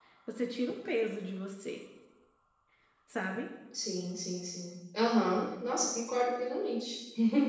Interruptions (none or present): none